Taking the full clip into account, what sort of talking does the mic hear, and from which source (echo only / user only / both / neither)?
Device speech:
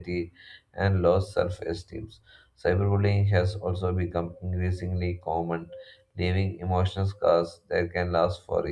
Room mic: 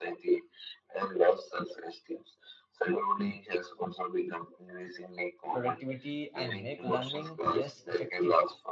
both